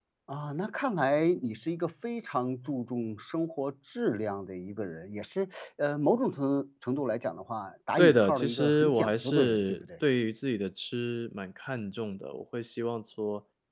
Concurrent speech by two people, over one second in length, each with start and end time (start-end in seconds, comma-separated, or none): 8.0-9.8